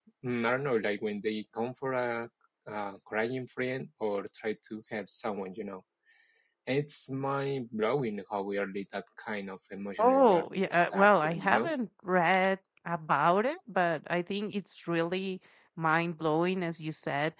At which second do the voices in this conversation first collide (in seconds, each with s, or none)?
10.0 s